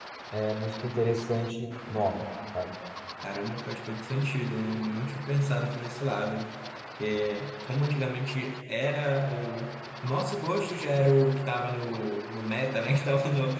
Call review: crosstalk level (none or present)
none